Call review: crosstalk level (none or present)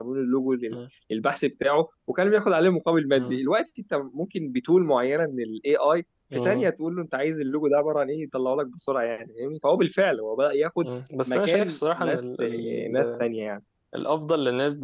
present